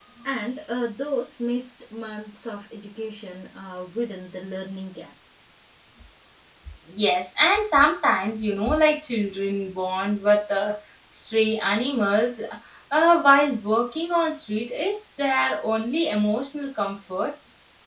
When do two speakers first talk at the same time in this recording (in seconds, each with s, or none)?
none